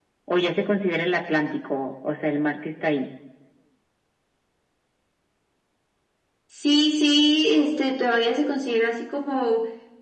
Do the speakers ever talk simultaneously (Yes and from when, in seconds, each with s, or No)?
No